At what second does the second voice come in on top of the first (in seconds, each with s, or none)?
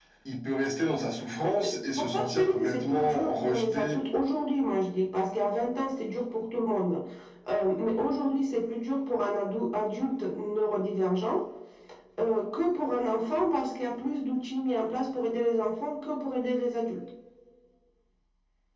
1.4 s